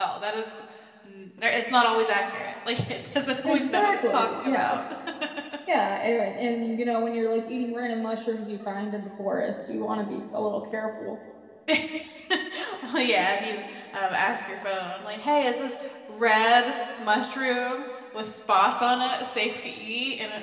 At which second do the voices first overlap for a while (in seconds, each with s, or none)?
3.5 s